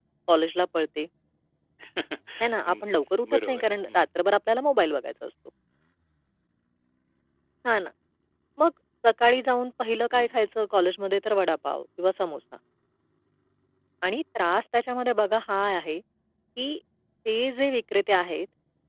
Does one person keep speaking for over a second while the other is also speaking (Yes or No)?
Yes